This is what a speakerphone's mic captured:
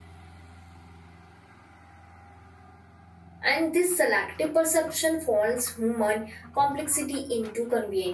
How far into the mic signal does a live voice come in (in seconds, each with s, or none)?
3.4 s